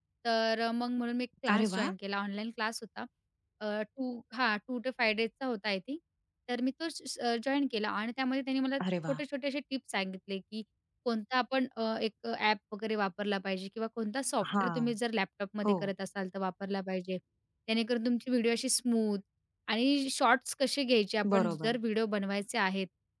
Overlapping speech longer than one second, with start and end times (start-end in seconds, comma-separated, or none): none